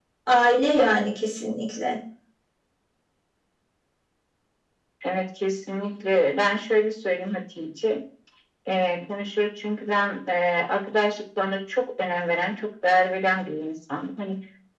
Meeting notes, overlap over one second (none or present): none